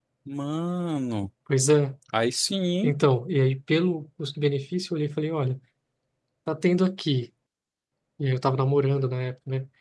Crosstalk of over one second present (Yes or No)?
No